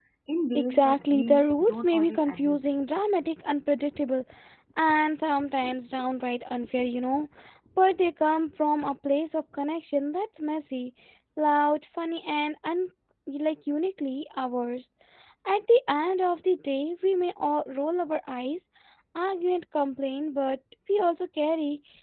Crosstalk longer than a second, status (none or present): present